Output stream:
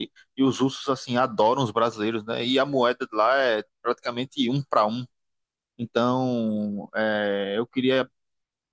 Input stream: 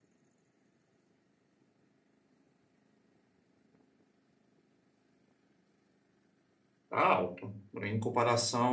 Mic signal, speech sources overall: user only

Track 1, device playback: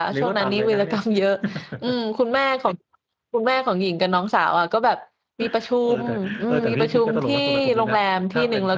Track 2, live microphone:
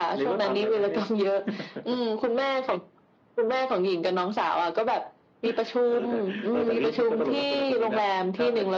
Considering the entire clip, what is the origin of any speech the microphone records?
echo only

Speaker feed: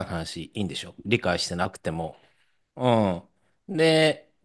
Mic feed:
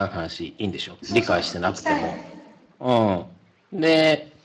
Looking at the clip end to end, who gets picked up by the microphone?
both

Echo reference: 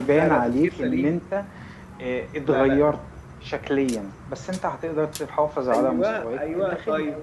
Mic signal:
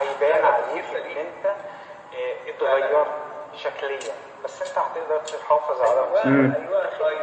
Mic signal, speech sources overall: both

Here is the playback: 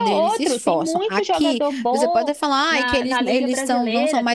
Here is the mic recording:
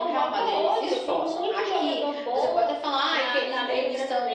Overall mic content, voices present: echo only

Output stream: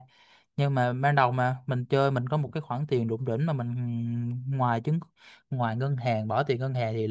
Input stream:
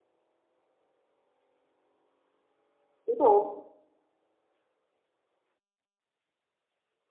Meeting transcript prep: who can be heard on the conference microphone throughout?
user only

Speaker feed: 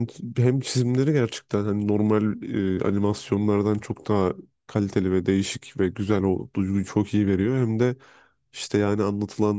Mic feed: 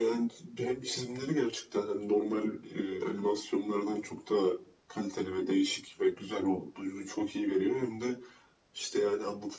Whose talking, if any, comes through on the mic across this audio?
echo only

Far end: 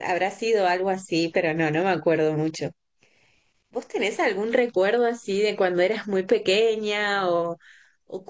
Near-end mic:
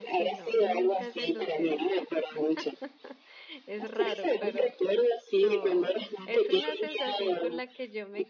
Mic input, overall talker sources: both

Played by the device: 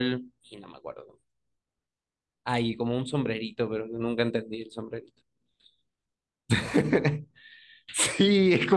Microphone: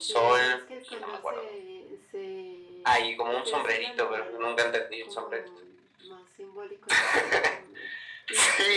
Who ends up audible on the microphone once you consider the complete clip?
both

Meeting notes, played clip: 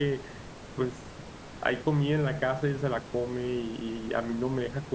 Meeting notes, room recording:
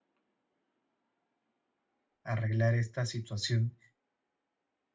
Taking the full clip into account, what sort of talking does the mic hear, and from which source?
user only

